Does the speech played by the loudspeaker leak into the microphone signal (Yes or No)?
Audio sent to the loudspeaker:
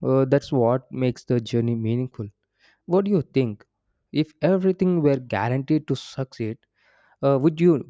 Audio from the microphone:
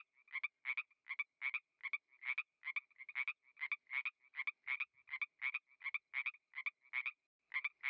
No